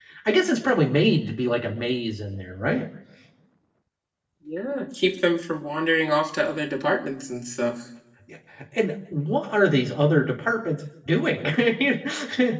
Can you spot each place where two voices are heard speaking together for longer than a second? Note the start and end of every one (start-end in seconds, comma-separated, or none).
none